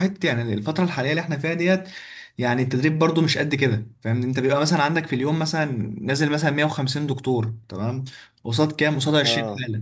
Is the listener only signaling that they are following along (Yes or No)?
Yes